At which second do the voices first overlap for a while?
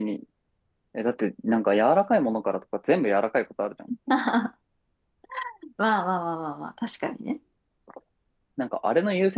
none

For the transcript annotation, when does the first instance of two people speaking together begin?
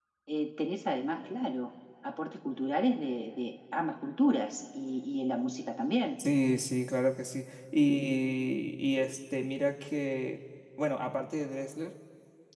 none

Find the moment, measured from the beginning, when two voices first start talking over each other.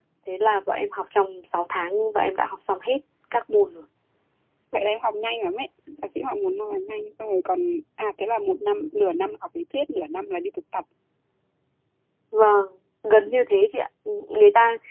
none

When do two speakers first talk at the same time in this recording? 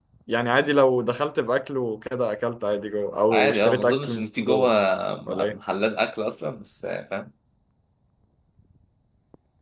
3.3 s

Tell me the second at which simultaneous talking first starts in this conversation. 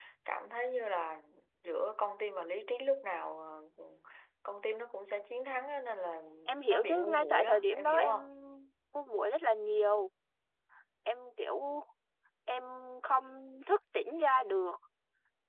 6.7 s

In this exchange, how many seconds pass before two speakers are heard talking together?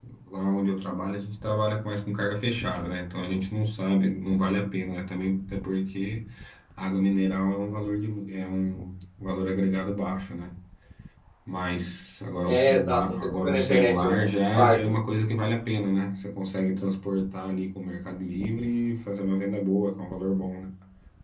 12.5 s

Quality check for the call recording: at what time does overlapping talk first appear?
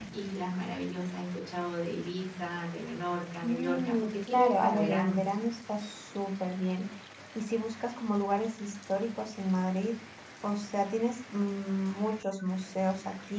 3.4 s

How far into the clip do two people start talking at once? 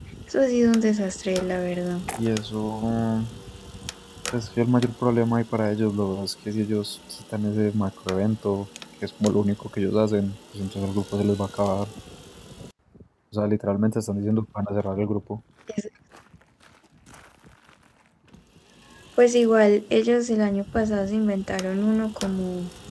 none

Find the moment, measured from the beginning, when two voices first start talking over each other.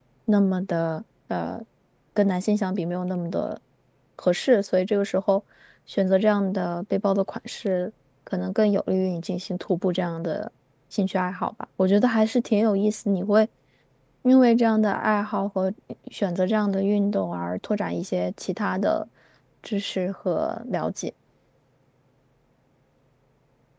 none

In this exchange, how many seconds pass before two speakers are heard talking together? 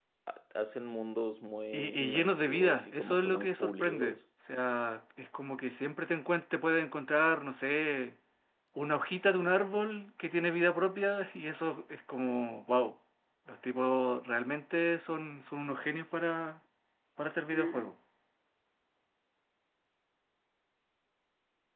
1.7 s

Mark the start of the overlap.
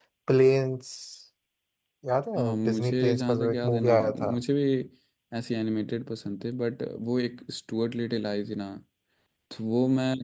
2.4 s

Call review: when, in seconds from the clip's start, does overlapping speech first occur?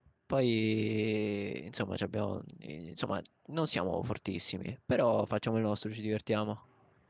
none

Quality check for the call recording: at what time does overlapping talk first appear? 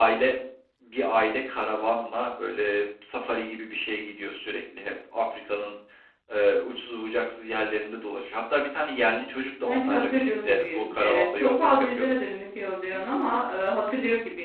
9.6 s

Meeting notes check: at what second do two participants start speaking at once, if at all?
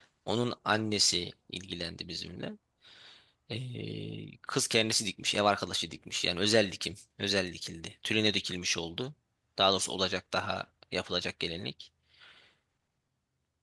none

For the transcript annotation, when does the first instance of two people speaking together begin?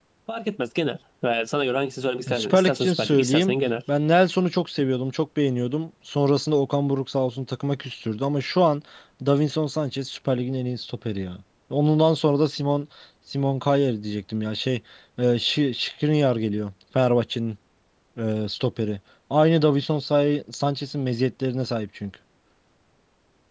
2.3 s

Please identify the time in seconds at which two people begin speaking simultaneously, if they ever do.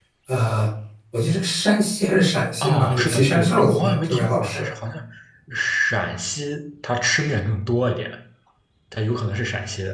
2.6 s

